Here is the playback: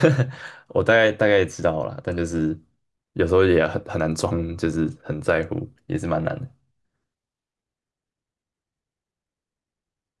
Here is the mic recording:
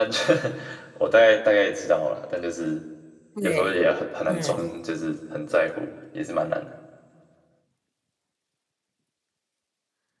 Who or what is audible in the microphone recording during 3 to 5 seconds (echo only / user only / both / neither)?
both